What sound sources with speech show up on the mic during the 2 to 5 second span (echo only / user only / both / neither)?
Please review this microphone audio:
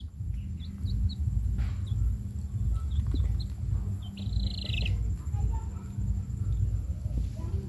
neither